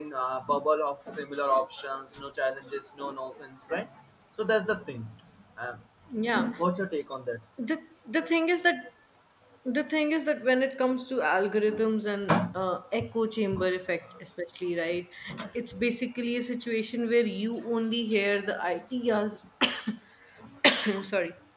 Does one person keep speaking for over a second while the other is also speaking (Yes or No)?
No